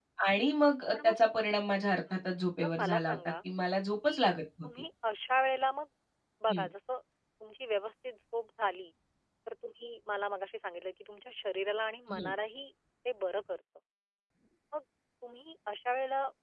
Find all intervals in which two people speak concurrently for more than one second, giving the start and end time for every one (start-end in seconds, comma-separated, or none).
2.1-3.3